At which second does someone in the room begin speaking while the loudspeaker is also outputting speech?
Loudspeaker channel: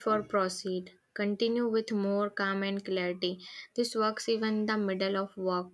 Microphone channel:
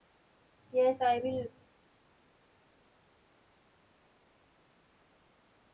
0.7 s

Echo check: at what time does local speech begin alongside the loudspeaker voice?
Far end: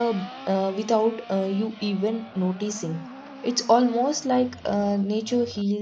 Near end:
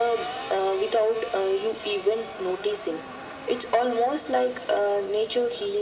none

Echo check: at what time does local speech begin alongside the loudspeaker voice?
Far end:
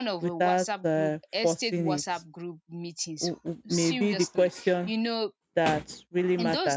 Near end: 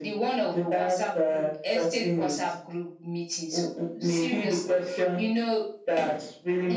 none

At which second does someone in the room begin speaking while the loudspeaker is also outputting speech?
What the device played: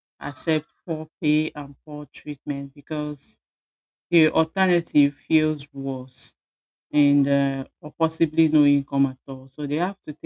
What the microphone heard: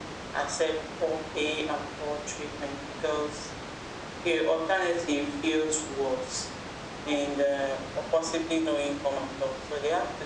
none

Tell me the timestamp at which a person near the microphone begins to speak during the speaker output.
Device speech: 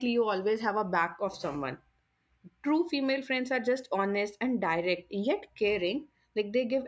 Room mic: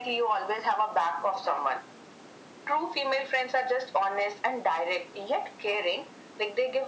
none

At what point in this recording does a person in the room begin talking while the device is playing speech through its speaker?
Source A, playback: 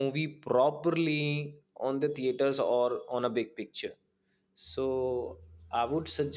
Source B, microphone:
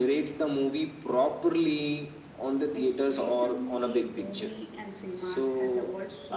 2.7 s

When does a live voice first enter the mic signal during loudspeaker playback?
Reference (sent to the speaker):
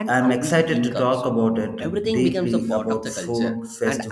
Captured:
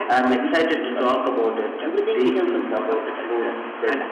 none

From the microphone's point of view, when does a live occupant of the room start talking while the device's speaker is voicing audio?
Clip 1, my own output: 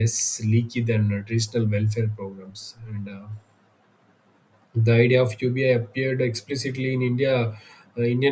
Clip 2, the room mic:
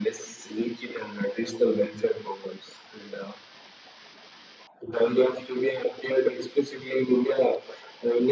none

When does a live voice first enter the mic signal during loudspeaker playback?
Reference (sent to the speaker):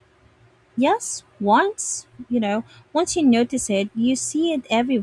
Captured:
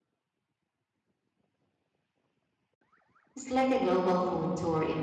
3.4 s

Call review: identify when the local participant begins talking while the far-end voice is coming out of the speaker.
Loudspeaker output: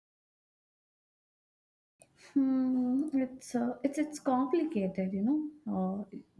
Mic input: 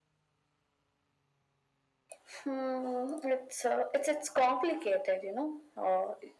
none

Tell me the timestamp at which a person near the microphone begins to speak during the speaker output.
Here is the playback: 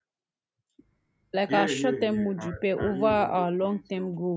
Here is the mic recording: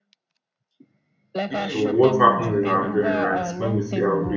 1.6 s

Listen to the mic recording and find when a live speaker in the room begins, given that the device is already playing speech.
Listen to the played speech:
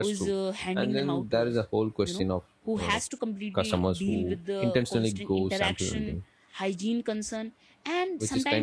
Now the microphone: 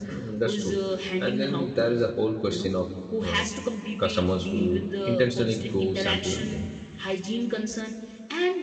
none

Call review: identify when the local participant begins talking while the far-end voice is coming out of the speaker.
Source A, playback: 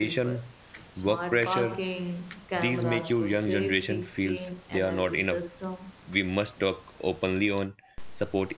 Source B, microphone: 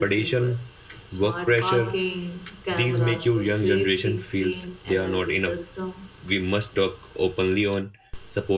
none

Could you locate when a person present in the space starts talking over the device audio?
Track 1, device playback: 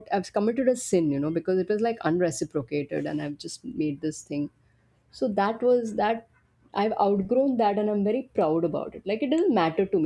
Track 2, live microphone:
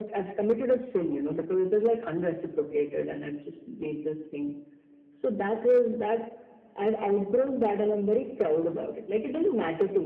none

